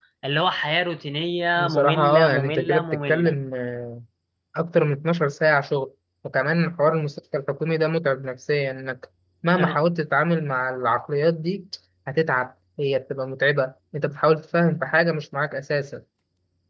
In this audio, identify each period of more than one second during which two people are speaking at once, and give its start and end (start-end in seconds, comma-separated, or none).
1.6-3.3